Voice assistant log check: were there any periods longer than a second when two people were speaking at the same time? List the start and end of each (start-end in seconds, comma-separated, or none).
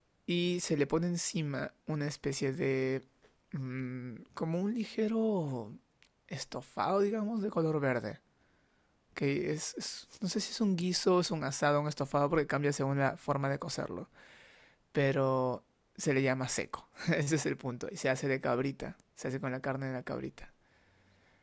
none